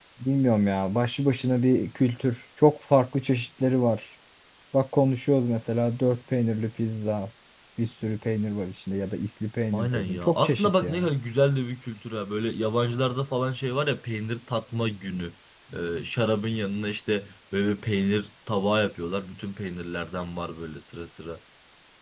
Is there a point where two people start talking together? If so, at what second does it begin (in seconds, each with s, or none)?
9.7 s